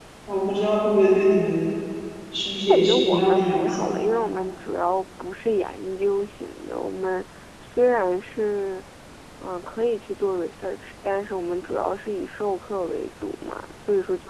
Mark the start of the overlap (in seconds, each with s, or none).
2.7 s